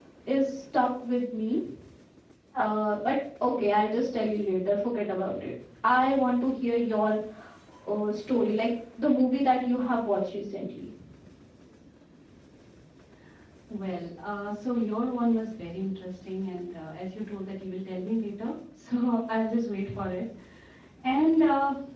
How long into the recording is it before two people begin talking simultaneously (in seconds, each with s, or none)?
none